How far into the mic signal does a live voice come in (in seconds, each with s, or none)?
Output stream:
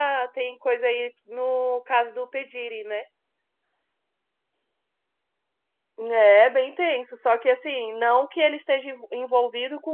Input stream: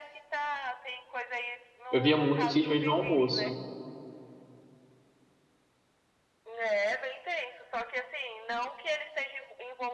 1.9 s